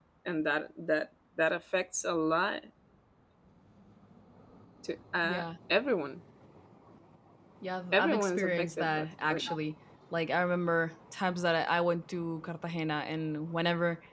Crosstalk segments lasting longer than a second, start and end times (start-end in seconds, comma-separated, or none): 7.9-9.4